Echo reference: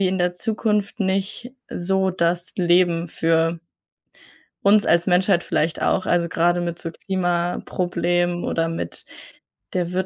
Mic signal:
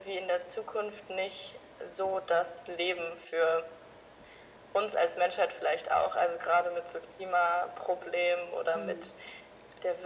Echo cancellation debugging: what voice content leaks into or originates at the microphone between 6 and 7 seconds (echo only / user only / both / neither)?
echo only